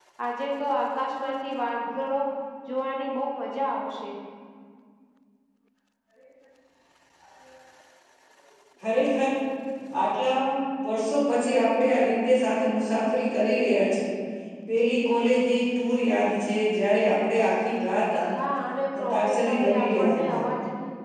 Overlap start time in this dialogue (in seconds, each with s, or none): 19.0 s